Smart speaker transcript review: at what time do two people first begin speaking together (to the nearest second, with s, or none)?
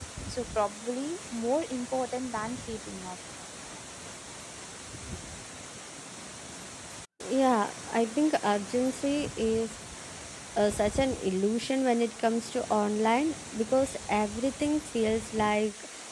none